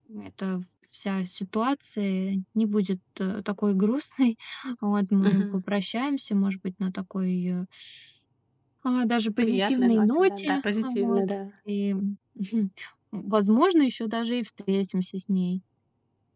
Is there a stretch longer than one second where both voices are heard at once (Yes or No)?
Yes